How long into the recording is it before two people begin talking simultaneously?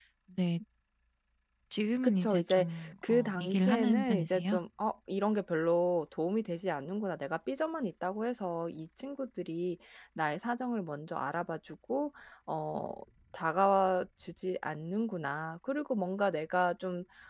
2.0 s

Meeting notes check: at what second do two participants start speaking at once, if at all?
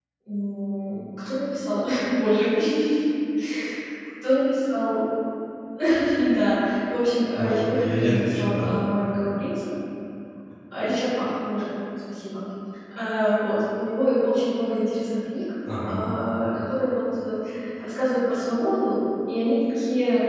7.3 s

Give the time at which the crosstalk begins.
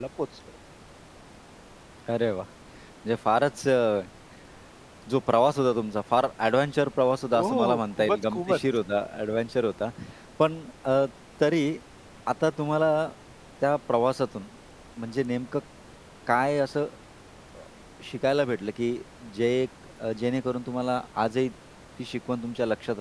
7.3 s

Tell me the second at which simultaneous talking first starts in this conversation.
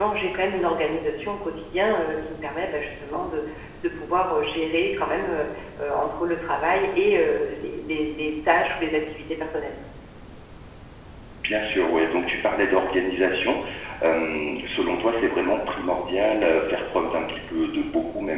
none

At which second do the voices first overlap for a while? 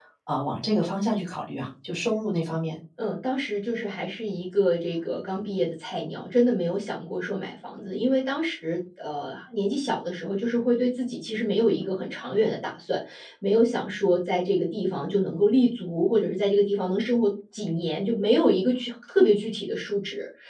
none

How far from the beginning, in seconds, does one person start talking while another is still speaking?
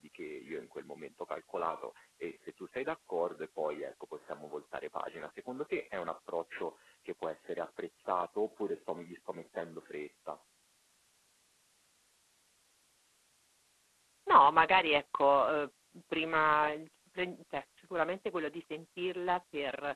none

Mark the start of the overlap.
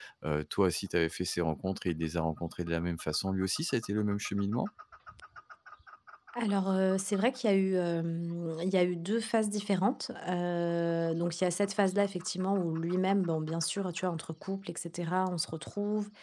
none

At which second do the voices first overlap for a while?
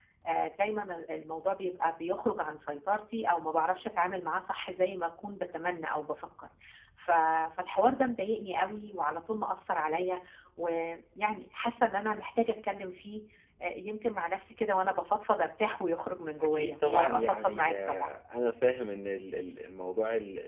16.4 s

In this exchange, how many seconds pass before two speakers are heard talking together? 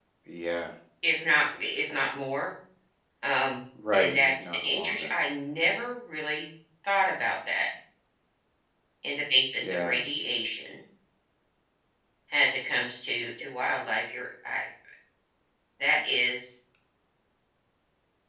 3.9 s

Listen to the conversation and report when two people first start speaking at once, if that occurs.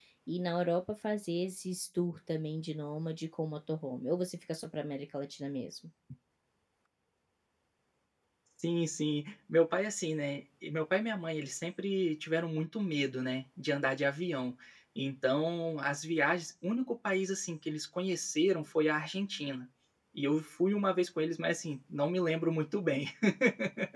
none

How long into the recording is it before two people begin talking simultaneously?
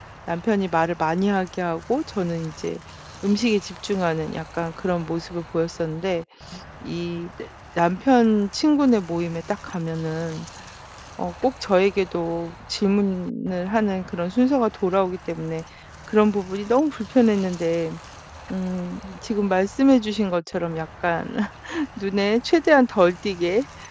none

